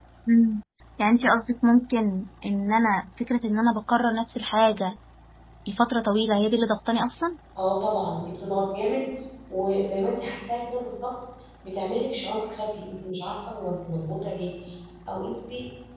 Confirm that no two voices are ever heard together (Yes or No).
Yes